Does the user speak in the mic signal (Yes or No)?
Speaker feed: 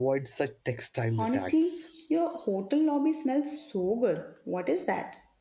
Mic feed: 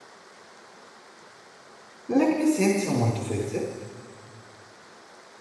Yes